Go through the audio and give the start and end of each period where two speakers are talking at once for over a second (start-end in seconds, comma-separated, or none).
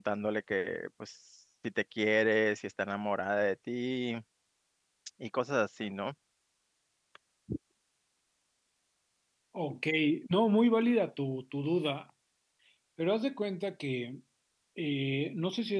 none